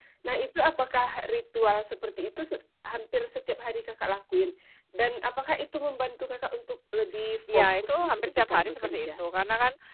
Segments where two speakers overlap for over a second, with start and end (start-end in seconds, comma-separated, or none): 7.5-9.2